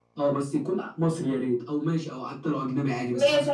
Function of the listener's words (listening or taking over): taking over